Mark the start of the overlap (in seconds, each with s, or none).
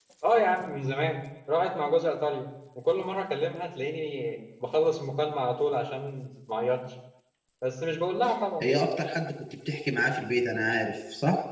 none